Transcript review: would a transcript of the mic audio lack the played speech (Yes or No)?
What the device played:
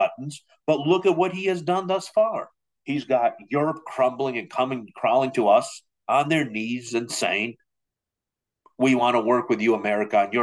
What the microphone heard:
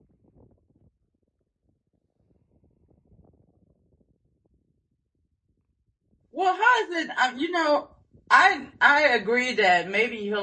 Yes